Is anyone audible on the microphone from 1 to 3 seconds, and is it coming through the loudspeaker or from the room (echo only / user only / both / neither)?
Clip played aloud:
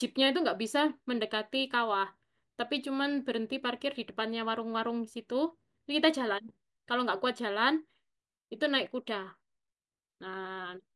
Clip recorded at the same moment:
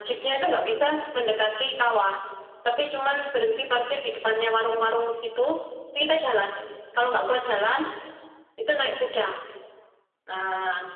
echo only